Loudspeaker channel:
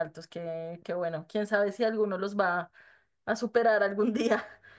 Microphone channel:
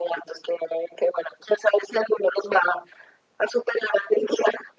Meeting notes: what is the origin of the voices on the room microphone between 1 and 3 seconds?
echo only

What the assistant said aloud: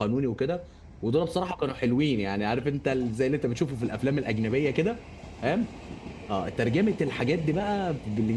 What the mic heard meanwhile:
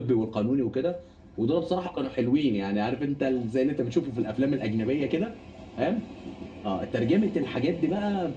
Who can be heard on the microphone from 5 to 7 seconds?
echo only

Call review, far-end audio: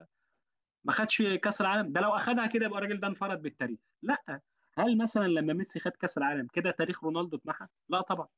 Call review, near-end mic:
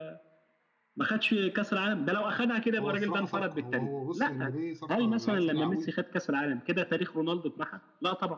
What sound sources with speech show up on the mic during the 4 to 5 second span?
both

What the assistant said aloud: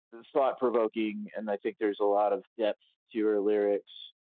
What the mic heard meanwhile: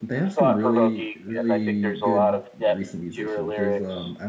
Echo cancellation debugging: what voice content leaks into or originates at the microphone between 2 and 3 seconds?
both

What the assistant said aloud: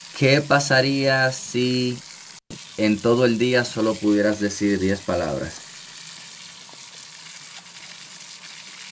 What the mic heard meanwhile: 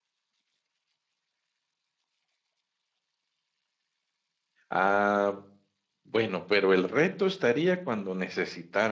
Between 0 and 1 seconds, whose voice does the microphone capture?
neither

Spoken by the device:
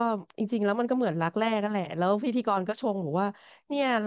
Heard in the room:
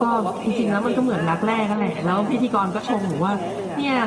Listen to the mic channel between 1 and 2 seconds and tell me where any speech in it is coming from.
both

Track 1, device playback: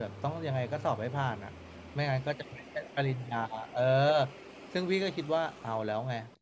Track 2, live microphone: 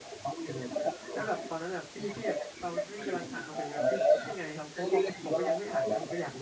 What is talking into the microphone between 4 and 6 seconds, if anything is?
both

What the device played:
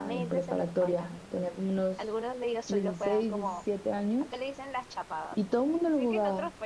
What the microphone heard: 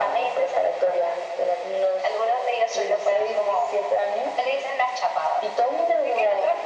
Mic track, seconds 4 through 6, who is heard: echo only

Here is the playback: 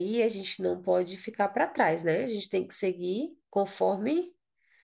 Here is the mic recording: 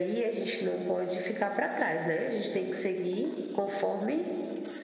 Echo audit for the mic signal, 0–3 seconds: echo only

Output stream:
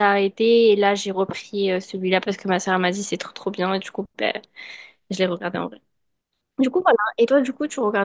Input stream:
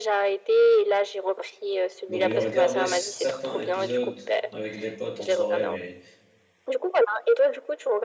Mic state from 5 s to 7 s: both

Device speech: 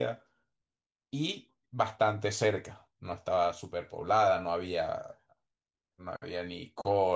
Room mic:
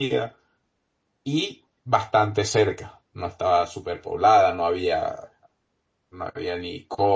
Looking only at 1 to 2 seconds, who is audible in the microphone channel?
echo only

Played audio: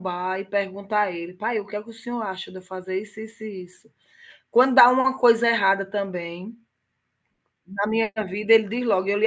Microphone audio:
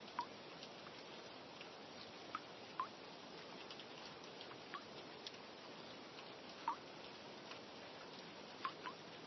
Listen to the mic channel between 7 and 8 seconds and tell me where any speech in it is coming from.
neither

